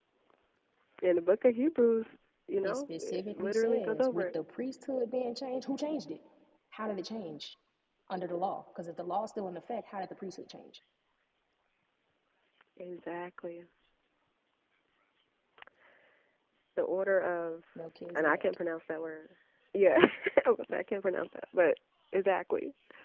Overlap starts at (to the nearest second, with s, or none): 3 s